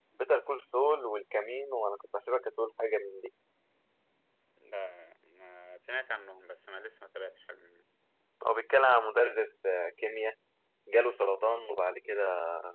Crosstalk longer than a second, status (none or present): none